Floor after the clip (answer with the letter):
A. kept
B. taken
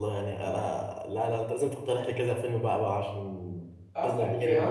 B